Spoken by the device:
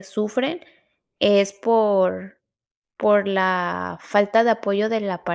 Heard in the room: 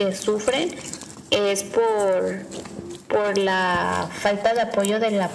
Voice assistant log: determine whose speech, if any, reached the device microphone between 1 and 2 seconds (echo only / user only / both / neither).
echo only